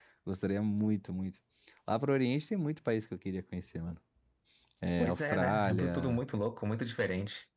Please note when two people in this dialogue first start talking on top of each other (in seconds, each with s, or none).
5.0 s